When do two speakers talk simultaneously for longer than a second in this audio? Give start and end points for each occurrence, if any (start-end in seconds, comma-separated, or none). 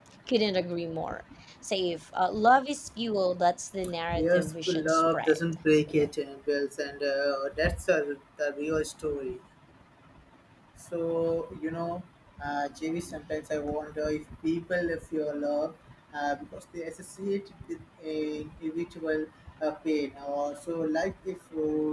4.1-5.4